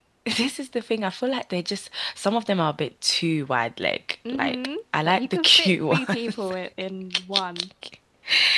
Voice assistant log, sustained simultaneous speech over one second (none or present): present